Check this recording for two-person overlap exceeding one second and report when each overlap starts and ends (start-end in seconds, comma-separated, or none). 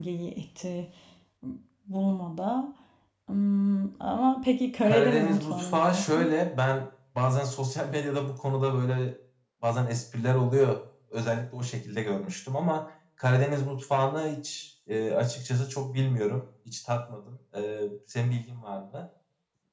4.8-6.3